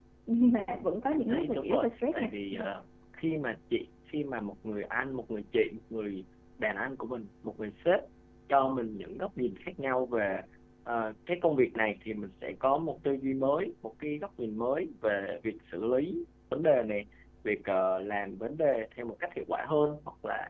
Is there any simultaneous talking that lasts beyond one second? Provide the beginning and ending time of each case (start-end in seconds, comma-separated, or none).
0.7-2.3